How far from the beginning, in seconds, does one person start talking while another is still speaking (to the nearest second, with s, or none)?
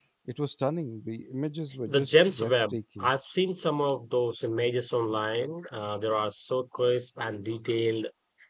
2 s